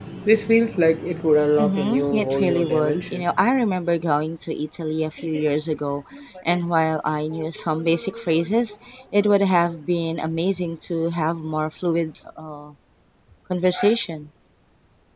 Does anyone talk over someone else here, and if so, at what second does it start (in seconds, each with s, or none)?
1.6 s